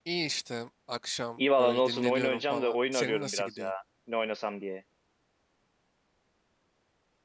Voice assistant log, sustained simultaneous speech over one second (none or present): present